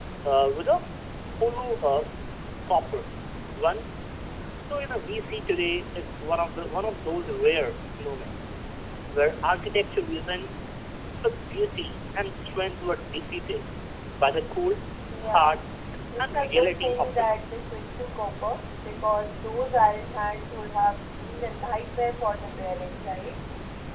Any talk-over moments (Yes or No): Yes